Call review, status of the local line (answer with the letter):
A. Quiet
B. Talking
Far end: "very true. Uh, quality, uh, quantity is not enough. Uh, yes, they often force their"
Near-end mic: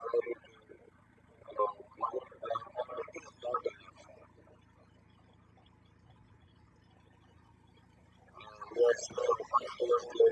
A